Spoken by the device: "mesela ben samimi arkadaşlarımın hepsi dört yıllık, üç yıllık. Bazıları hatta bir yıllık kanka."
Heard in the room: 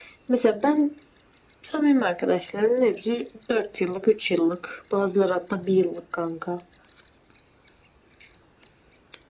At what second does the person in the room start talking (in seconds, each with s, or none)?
none